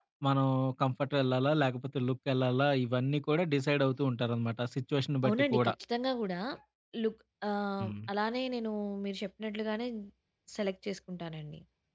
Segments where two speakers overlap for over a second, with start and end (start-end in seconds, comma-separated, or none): none